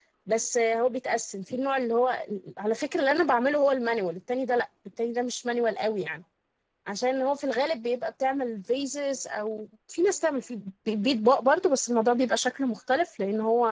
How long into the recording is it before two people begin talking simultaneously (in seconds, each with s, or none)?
none